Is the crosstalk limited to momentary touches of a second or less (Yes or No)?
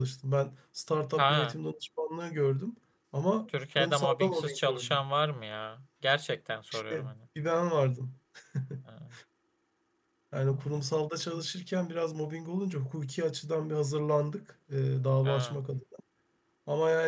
No